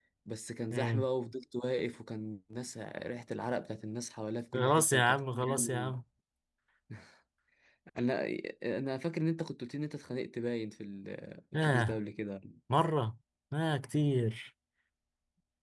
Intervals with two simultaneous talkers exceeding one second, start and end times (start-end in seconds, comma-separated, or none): 4.5-5.9